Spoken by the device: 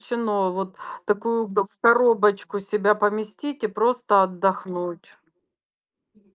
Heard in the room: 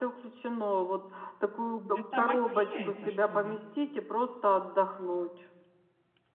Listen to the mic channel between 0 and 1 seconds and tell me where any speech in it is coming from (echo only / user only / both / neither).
echo only